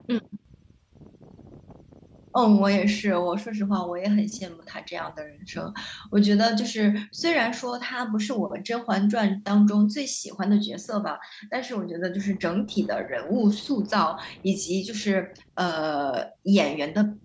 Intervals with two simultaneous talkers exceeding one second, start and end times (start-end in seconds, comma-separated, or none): none